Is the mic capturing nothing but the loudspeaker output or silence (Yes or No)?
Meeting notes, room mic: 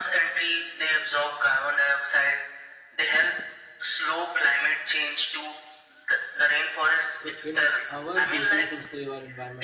No